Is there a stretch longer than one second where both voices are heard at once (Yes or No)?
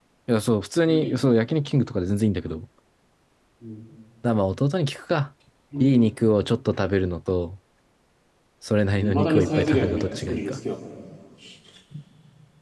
Yes